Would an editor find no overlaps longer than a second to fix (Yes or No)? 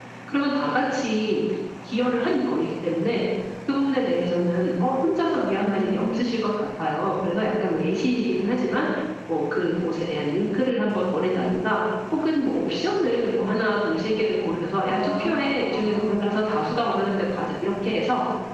No